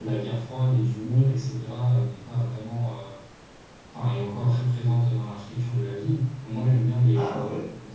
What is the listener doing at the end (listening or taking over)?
listening